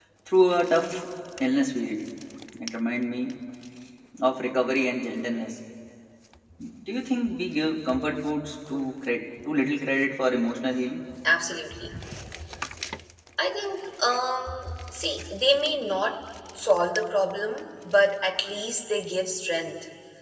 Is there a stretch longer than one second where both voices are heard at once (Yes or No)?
No